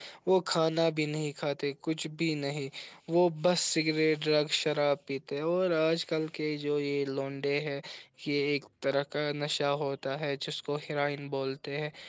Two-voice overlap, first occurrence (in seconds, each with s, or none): none